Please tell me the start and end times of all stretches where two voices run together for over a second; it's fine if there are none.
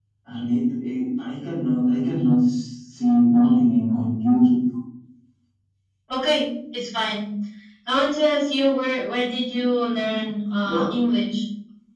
none

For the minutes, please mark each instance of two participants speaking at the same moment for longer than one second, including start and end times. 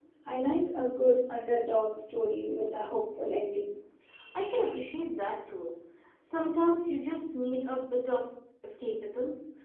none

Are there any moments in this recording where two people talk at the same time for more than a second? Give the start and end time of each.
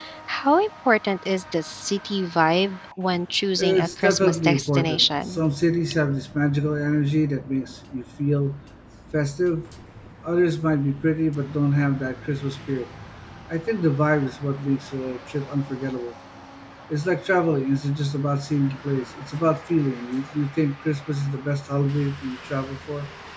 3.6-5.4

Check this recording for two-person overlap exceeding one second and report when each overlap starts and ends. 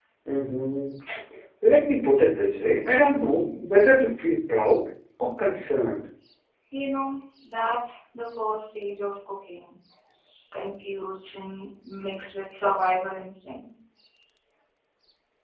none

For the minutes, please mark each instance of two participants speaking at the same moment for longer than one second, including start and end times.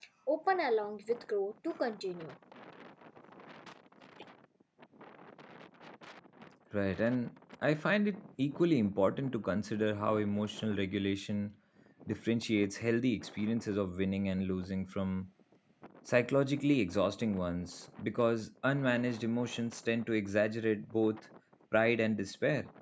none

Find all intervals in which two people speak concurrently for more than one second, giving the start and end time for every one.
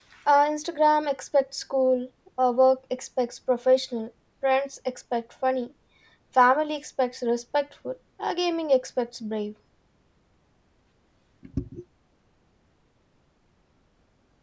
none

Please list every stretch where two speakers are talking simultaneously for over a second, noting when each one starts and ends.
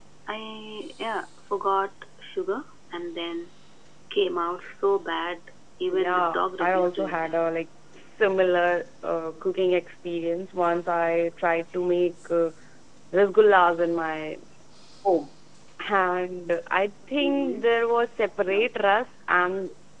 5.9-7.3

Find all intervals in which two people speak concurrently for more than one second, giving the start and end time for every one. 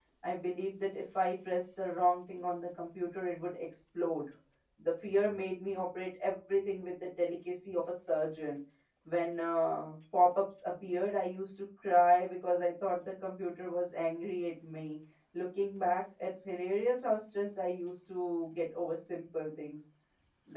none

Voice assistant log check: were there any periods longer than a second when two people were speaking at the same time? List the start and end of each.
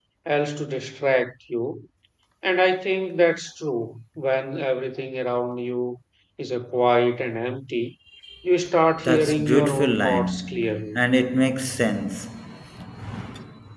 9.0-11.0

